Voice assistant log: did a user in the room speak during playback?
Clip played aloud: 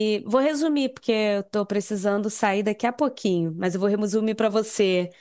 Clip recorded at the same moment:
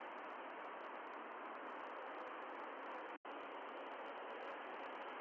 No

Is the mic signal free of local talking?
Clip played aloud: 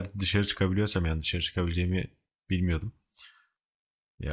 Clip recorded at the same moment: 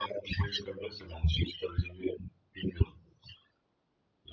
Yes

